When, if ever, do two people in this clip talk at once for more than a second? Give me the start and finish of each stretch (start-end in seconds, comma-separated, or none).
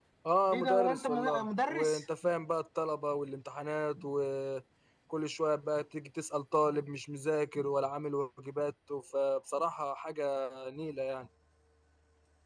0.5-2.0